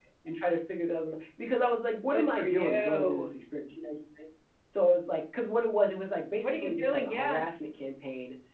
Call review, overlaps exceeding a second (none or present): present